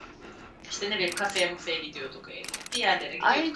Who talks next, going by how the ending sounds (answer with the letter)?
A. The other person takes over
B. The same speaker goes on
A